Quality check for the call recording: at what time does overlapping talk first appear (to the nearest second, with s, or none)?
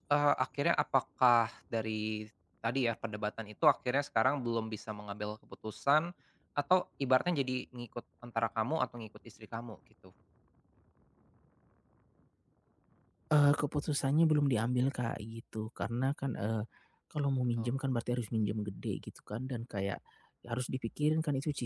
none